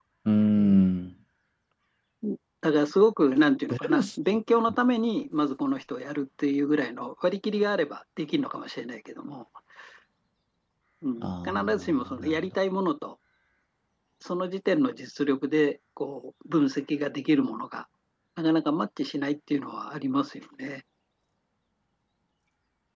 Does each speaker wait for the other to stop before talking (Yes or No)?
No